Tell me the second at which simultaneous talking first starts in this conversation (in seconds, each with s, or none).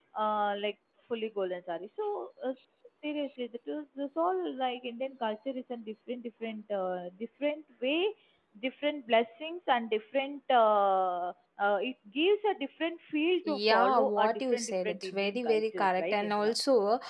13.4 s